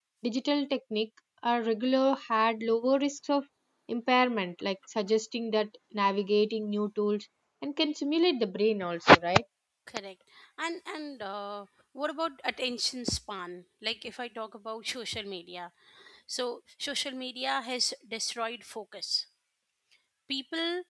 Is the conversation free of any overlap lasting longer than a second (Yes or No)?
Yes